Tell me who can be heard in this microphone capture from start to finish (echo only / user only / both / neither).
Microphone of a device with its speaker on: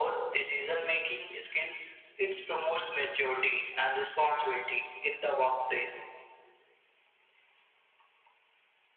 echo only